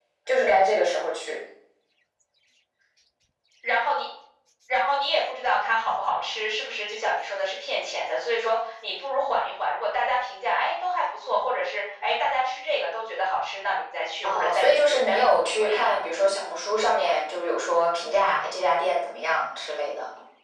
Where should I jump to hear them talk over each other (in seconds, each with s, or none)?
14.2 s